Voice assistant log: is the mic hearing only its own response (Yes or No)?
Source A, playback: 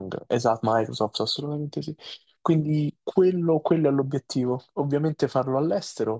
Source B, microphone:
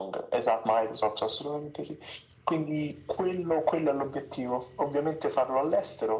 Yes